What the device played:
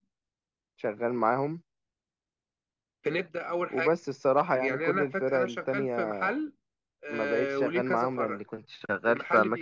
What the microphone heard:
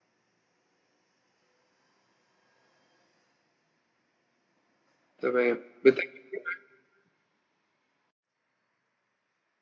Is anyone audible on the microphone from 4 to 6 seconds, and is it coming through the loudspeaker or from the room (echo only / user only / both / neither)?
user only